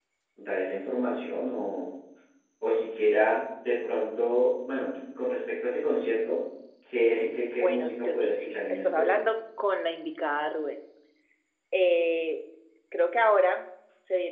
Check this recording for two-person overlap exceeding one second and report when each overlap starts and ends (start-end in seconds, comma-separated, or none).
7.6-9.2